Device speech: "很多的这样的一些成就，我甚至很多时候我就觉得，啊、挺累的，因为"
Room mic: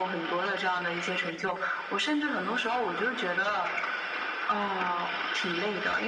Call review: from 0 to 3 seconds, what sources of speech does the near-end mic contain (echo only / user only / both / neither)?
echo only